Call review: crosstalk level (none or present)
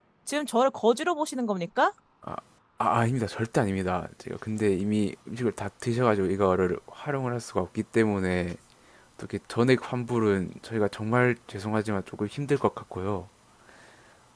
none